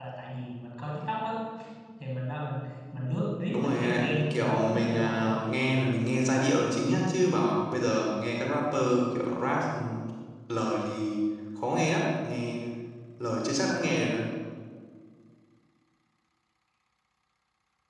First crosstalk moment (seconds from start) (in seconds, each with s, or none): 3.5 s